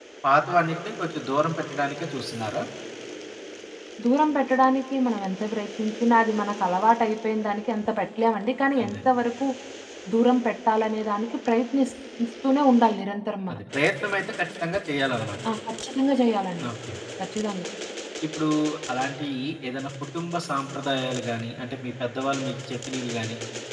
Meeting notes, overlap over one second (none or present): none